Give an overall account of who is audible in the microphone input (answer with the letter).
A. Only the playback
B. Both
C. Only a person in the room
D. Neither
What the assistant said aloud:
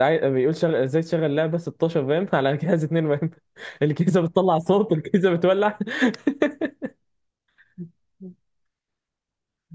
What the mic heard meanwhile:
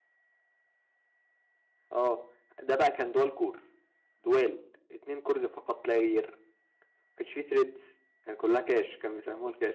C